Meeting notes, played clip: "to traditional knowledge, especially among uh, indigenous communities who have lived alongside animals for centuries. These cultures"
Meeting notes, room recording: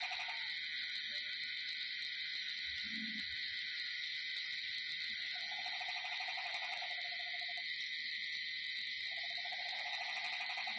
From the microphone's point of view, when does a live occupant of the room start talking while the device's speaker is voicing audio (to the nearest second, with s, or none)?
none